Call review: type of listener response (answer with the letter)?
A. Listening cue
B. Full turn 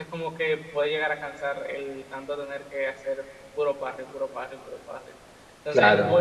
A